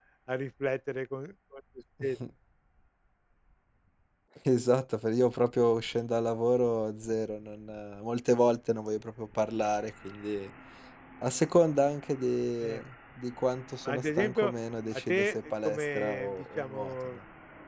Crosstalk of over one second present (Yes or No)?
Yes